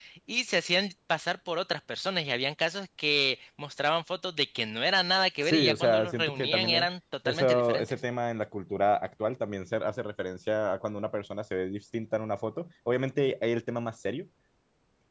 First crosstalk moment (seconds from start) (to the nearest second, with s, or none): 5 s